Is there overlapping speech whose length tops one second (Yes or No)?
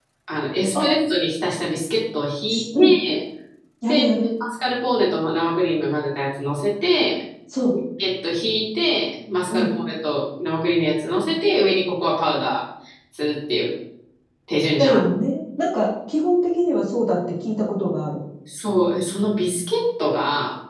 No